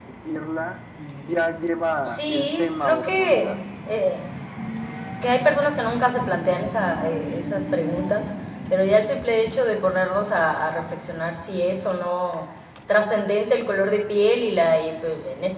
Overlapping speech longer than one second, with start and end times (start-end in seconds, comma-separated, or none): 2.0-3.5